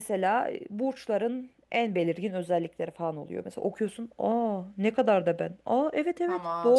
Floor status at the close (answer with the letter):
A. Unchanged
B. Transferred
B